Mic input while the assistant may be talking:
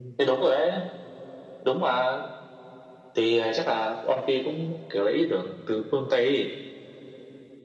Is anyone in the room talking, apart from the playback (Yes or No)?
No